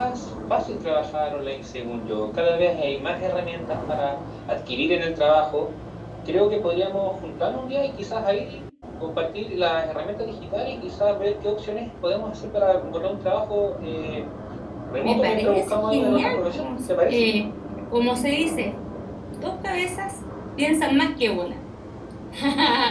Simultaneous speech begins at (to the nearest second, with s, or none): 15 s